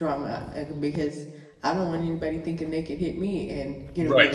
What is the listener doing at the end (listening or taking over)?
taking over